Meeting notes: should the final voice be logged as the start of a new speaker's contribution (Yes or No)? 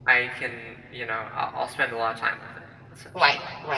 Yes